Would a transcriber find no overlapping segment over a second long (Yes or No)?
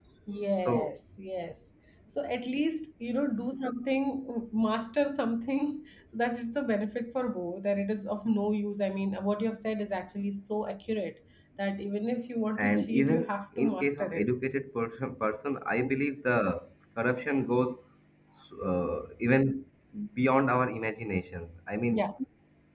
No